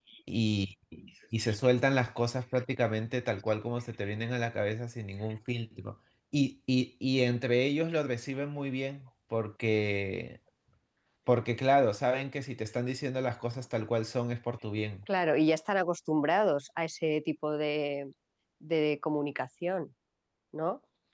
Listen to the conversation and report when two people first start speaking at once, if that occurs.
none

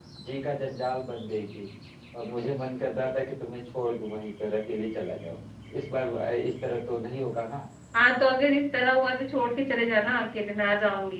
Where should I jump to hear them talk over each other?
none

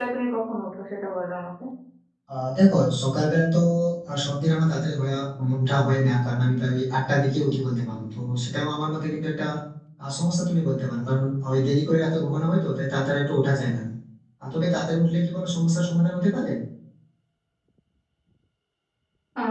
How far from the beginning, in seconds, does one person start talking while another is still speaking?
none

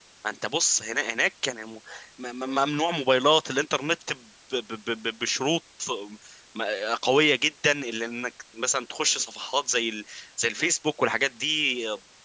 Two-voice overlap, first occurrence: none

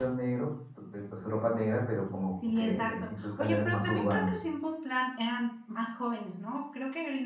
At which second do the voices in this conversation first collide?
2.4 s

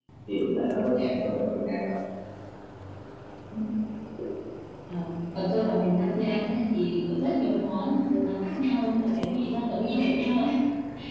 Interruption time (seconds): none

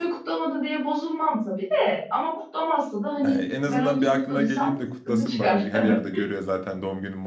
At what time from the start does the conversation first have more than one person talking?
3.2 s

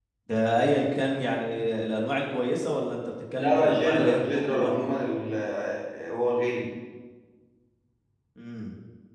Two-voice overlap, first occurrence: 3.4 s

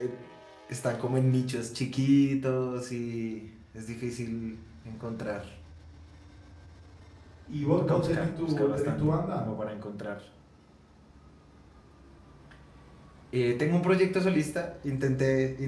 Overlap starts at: 7.8 s

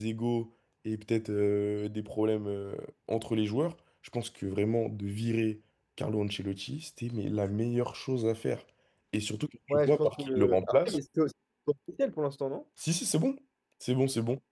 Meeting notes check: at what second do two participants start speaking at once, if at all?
9.7 s

